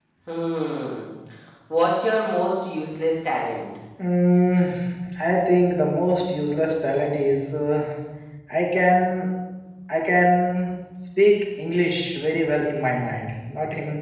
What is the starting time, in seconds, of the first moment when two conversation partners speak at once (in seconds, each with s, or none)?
none